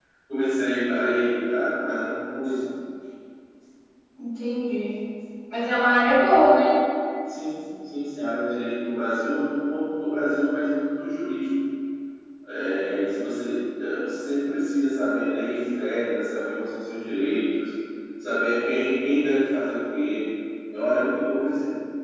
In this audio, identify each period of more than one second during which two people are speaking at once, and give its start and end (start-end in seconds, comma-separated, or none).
none